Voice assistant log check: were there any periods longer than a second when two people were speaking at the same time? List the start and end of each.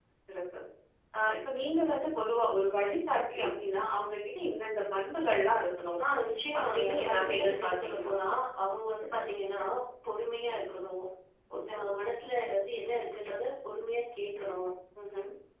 6.6-8.1

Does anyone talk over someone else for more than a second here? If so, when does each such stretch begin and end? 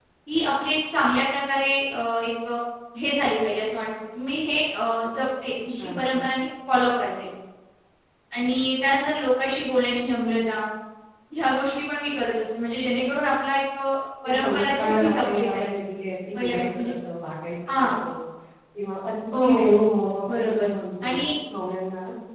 14.2-15.7

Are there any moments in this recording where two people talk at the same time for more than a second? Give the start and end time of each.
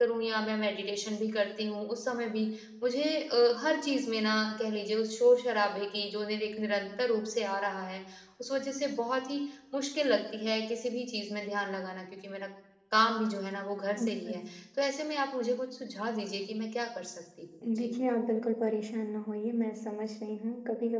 none

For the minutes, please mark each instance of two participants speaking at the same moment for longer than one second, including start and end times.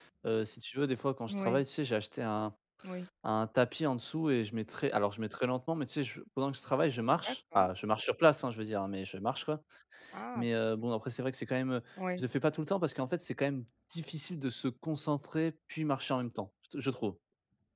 none

